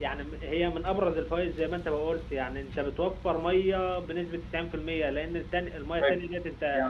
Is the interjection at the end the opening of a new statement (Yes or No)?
Yes